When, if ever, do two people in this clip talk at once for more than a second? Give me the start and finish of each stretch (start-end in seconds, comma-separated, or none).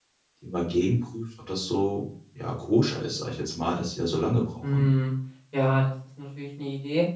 none